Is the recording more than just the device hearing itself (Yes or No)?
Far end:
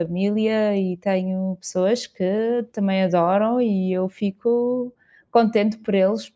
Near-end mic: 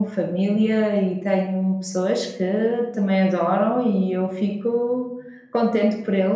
No